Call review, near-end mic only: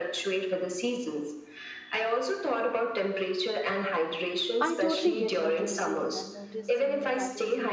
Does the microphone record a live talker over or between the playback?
Yes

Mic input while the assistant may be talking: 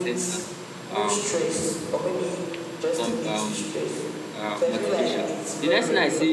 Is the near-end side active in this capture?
Yes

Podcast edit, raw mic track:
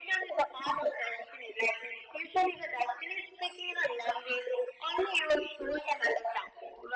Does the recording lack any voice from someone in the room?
Yes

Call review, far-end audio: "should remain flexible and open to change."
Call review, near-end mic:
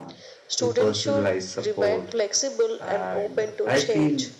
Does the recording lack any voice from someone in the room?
No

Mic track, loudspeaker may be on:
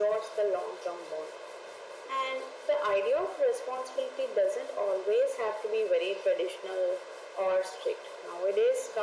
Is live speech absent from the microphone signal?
Yes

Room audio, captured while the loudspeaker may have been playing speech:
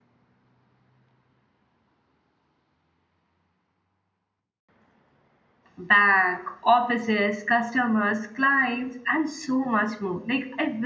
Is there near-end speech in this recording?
Yes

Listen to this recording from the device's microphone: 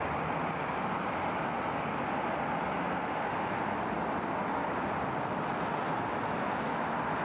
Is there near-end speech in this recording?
No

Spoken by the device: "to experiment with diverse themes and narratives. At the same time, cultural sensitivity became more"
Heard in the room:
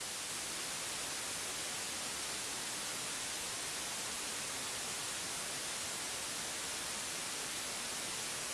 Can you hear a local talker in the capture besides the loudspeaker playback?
No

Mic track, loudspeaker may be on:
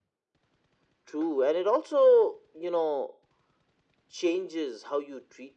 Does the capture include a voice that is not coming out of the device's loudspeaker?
No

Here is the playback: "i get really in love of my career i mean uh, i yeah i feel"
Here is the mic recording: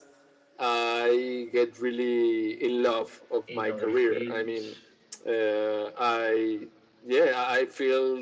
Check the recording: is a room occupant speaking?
Yes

